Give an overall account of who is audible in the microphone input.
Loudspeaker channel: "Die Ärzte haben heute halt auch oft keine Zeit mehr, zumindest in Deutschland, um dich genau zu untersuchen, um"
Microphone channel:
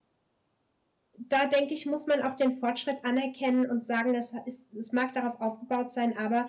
user only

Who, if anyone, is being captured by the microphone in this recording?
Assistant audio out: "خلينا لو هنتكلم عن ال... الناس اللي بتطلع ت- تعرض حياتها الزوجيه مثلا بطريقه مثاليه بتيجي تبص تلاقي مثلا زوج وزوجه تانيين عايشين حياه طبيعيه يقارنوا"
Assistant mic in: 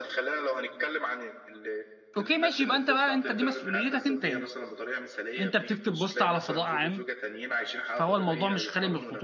both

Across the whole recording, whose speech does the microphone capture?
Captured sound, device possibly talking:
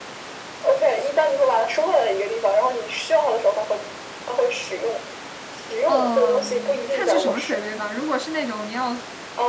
both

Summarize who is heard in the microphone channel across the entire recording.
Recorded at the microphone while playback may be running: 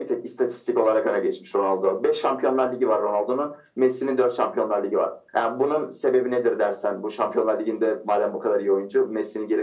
echo only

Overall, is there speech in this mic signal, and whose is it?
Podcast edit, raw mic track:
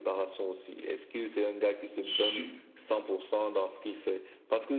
both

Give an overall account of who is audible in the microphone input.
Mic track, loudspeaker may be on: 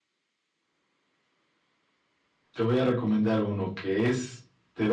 user only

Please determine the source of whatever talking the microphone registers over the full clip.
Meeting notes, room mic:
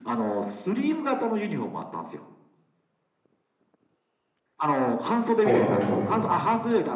both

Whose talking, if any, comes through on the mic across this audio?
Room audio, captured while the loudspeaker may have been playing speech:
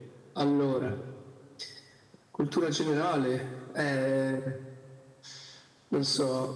echo only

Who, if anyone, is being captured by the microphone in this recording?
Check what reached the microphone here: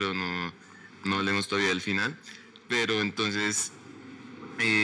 echo only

